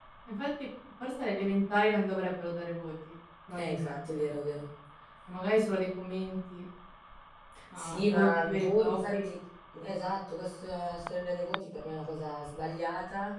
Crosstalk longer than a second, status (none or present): present